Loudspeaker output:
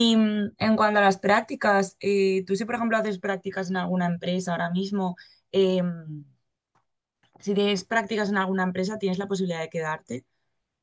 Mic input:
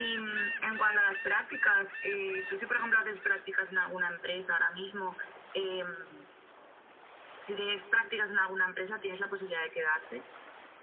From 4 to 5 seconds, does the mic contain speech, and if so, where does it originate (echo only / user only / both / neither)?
echo only